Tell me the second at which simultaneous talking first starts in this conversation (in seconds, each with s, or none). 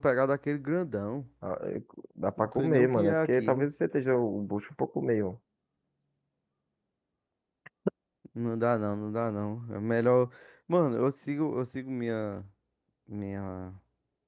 2.4 s